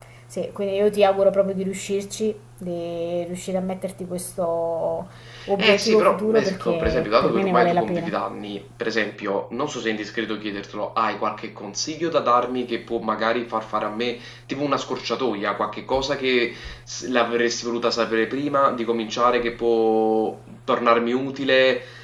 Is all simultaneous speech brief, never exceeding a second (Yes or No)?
No